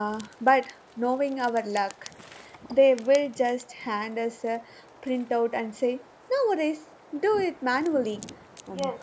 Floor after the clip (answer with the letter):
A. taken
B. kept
A